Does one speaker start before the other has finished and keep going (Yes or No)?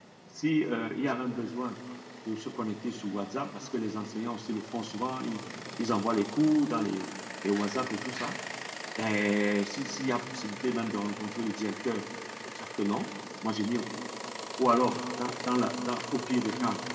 No